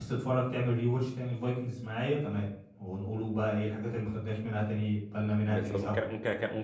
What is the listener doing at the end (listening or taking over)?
taking over